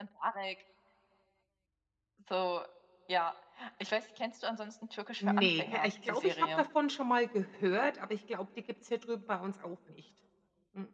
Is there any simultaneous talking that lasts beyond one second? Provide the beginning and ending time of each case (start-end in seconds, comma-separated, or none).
5.2-6.6